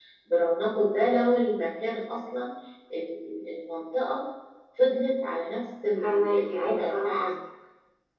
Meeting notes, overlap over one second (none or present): present